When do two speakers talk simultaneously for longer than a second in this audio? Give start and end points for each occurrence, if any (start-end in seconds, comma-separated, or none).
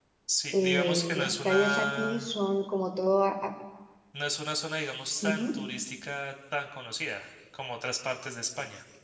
0.5-2.3